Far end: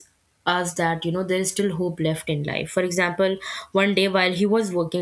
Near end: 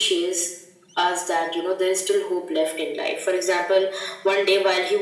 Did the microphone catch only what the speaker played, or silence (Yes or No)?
Yes